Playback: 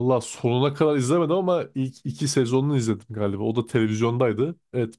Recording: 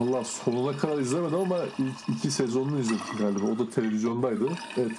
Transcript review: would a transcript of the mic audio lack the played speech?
No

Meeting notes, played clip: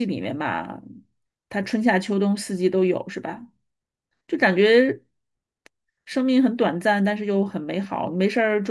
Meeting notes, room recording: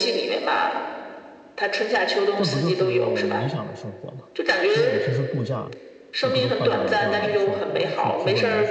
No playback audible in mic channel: No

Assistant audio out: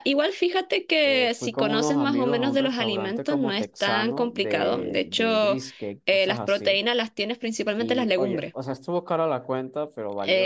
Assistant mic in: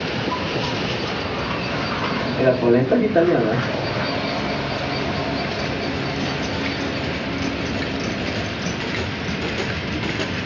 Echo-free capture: Yes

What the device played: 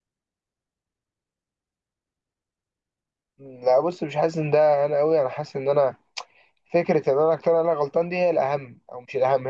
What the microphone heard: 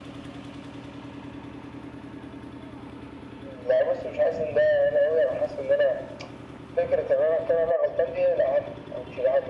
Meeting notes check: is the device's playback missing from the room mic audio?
No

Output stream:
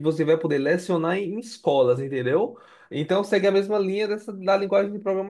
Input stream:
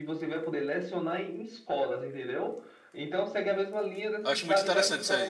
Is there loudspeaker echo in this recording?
Yes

